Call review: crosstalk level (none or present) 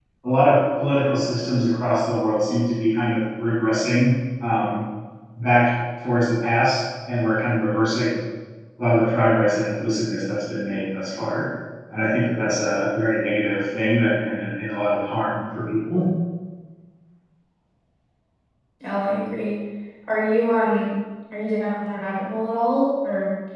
none